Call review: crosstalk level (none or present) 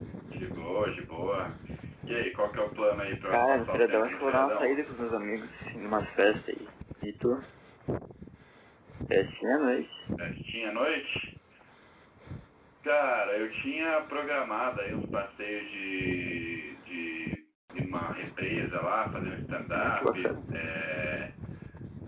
present